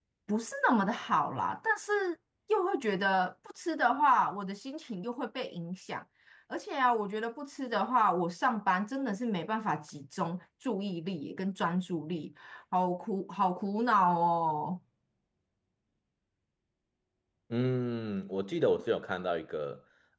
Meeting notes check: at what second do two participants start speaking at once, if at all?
none

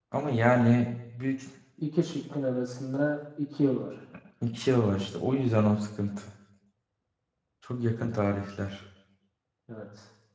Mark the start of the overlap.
none

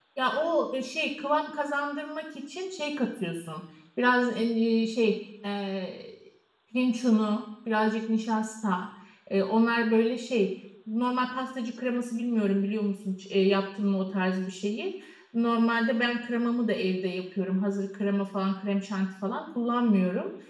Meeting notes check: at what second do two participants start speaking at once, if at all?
none

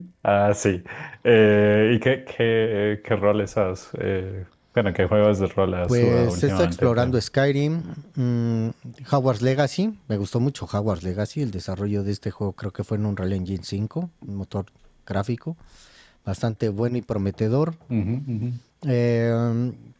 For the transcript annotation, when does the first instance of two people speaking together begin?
5.9 s

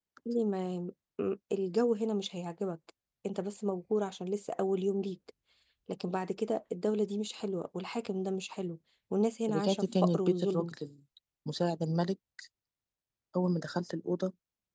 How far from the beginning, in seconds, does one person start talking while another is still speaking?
9.5 s

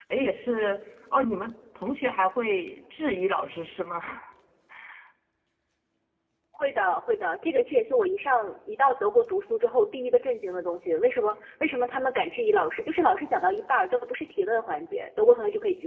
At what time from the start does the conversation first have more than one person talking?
none

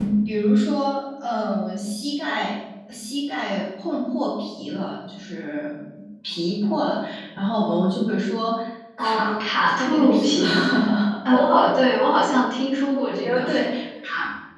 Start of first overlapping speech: 9.0 s

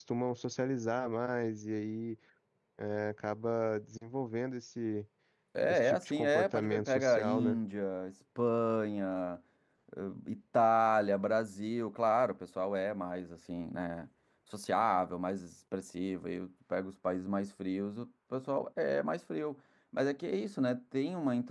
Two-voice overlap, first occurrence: 5.7 s

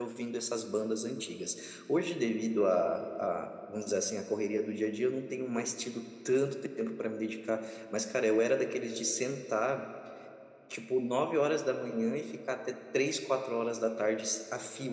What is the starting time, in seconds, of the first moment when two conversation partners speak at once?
none

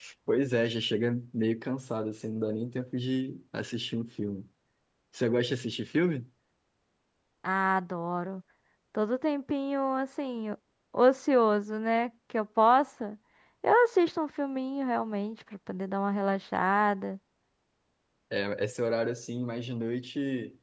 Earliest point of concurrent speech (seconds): none

